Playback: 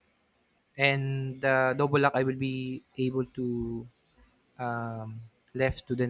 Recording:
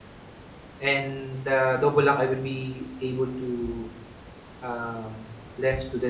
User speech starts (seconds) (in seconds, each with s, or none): none